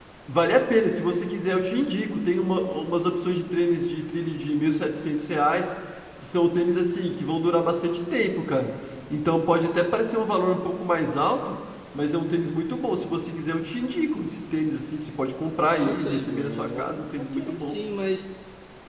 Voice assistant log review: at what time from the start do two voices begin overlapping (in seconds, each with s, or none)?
15.7 s